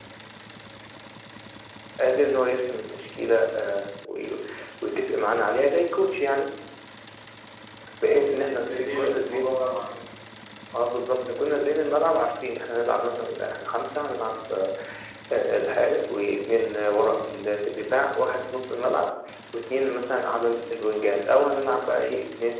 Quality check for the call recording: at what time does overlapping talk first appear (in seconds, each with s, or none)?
8.1 s